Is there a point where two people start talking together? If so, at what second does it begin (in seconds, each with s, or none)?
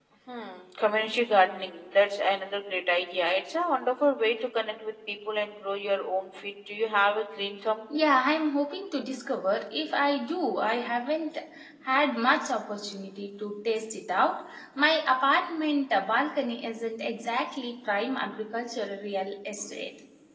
none